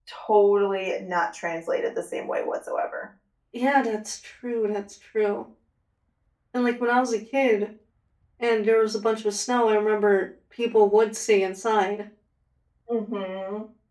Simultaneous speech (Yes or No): No